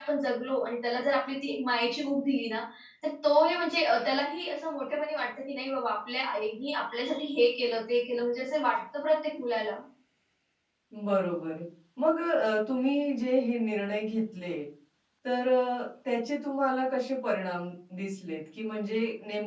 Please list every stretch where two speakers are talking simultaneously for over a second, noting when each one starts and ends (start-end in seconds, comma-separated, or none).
none